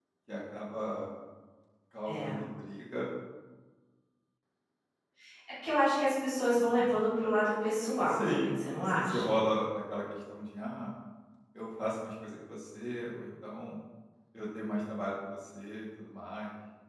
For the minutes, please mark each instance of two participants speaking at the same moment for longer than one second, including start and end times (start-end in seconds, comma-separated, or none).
7.8-9.3